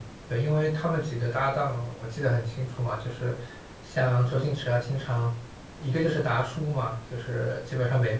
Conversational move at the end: listening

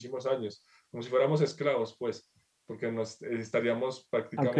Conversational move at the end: listening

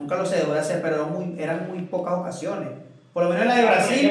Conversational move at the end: taking over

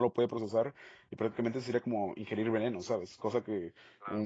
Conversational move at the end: listening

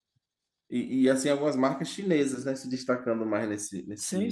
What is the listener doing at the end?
taking over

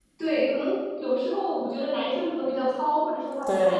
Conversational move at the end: listening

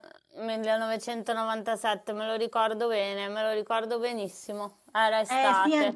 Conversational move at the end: taking over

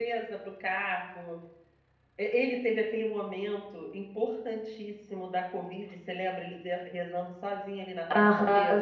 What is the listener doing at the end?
taking over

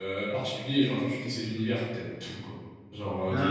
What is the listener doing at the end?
listening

